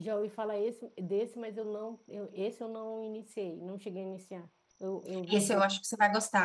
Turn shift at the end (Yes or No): Yes